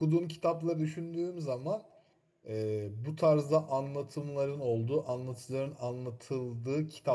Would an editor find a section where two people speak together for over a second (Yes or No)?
No